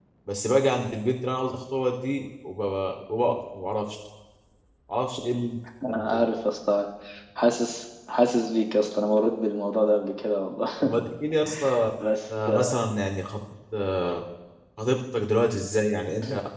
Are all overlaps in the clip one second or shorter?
Yes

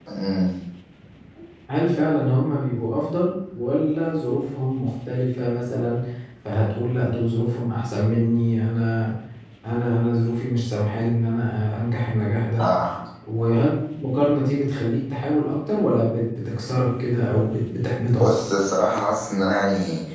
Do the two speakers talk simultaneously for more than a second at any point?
No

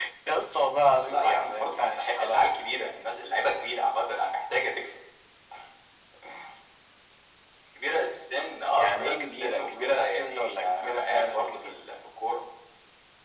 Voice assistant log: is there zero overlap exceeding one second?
No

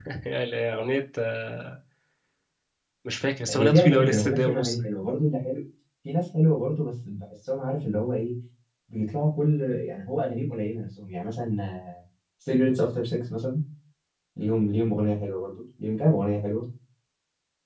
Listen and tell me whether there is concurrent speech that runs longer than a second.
Yes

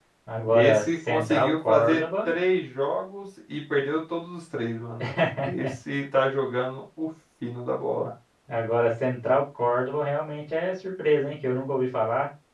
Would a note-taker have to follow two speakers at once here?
Yes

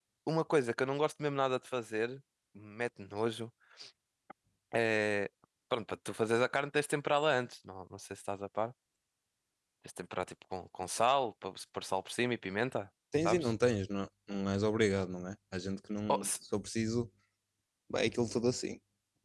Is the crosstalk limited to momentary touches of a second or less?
Yes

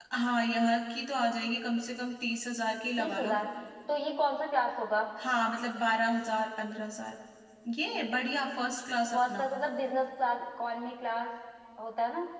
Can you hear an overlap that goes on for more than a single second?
No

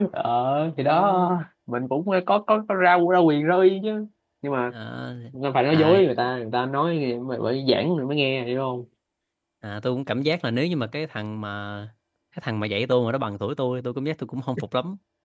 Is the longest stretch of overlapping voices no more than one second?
Yes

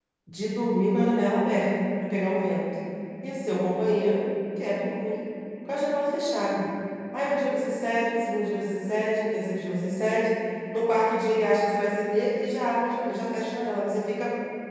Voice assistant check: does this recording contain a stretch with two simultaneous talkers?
No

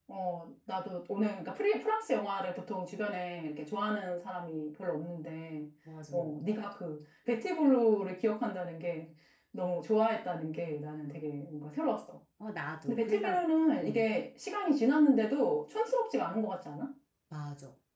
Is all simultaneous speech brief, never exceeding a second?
Yes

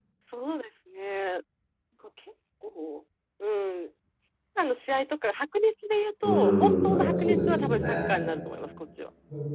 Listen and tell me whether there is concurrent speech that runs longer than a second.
Yes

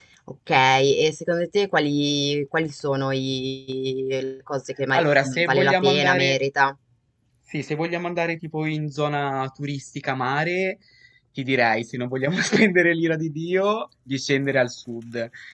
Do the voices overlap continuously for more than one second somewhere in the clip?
Yes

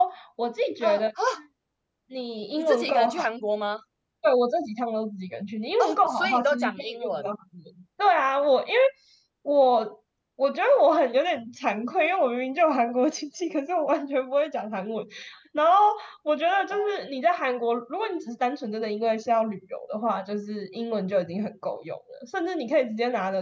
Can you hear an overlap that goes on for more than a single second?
Yes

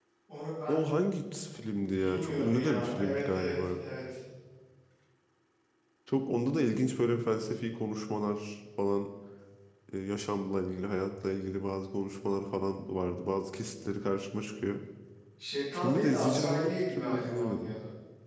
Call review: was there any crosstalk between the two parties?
Yes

